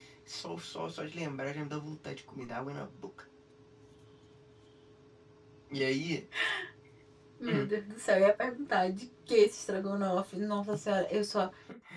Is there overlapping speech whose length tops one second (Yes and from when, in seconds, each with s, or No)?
No